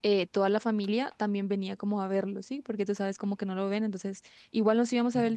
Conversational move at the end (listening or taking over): listening